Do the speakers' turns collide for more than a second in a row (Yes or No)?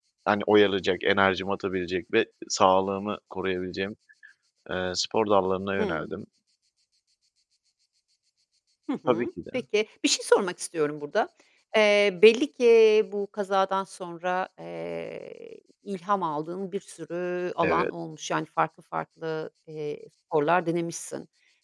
No